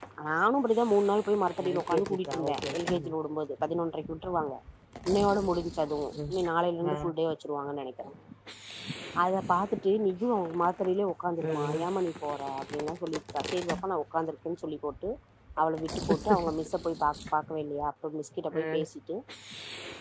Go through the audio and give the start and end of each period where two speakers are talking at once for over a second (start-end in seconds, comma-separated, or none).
1.6-3.1